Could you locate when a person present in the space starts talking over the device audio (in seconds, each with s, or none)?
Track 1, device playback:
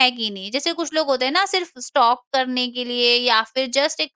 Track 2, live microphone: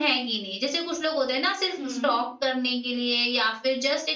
1.8 s